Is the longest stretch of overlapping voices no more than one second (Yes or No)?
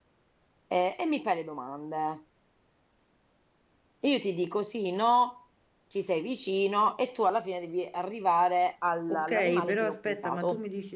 No